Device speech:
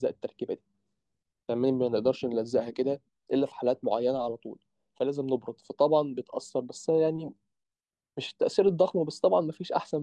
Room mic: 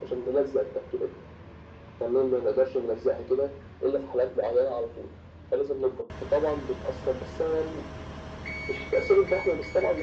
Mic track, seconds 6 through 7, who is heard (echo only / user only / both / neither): echo only